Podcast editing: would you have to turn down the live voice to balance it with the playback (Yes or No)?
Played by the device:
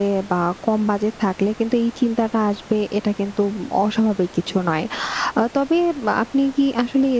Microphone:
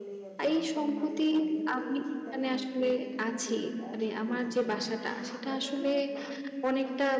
Yes